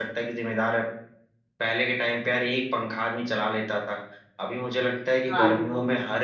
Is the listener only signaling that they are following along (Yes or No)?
Yes